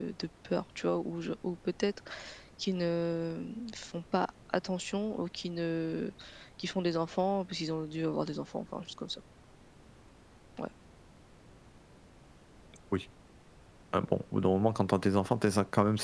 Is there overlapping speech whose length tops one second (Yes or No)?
No